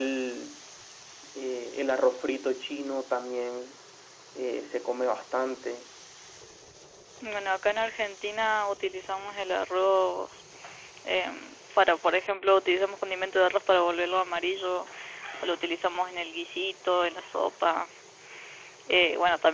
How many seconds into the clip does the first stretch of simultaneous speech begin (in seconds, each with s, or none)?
none